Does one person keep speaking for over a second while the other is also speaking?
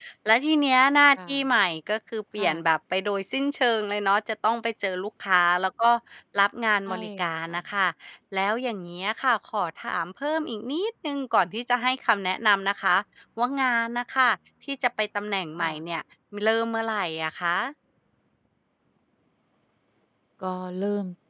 No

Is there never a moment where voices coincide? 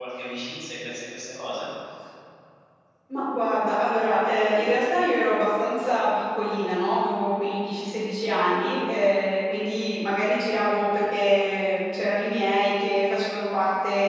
Yes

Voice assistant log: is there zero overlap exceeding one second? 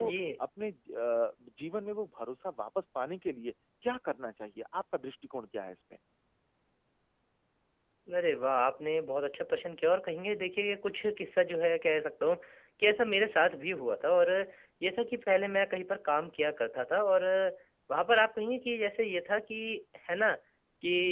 Yes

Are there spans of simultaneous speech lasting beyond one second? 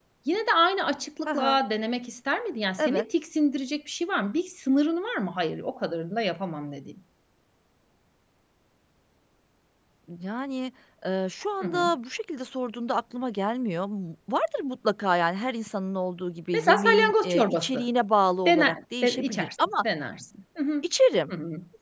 Yes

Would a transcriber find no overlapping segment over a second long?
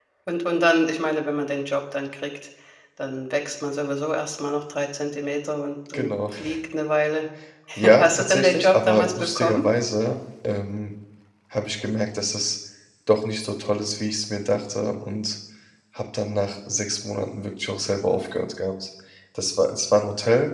No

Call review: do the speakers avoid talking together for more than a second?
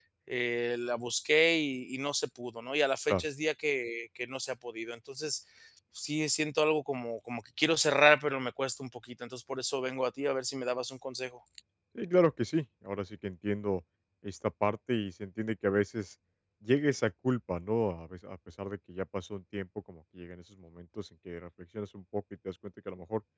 Yes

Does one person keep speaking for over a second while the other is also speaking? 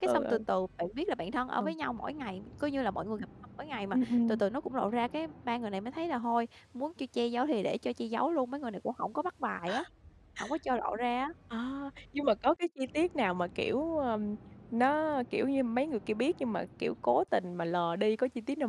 No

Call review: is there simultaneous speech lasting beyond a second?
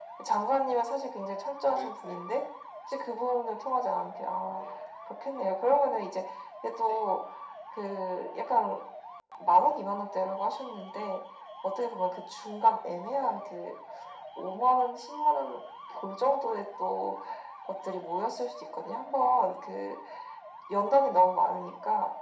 No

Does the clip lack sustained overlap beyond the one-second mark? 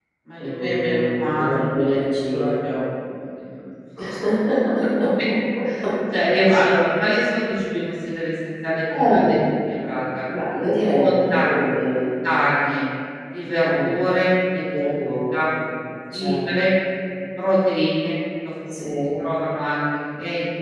No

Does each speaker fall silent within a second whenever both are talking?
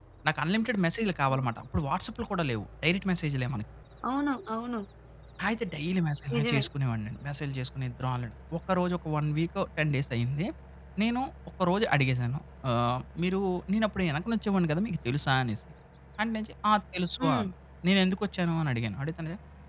Yes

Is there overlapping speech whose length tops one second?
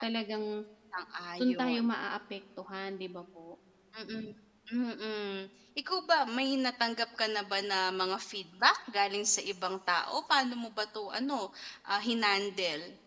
No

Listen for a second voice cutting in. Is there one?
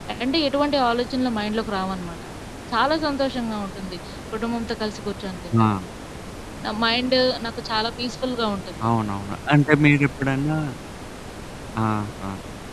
No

